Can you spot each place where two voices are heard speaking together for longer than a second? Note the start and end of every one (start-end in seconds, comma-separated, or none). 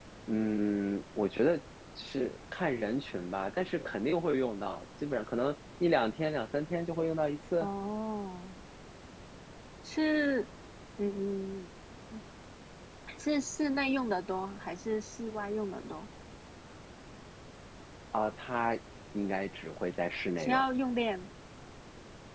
none